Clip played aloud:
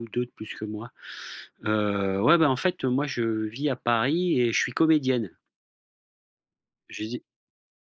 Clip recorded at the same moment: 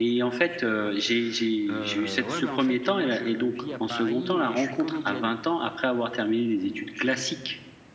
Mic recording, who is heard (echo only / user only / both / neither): both